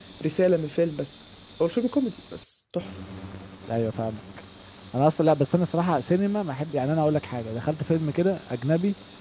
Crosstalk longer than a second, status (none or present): none